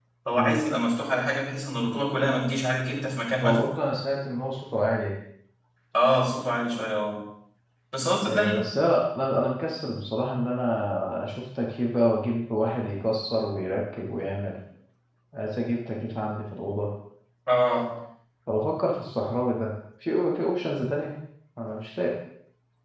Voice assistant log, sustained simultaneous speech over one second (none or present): none